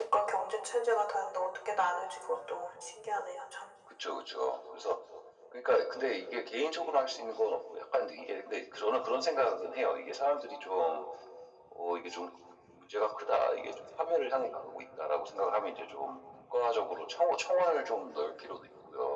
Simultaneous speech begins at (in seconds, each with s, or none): none